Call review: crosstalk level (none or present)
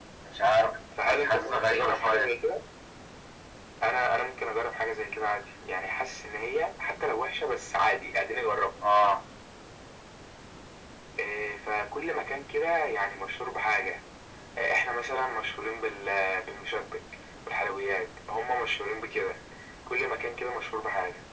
present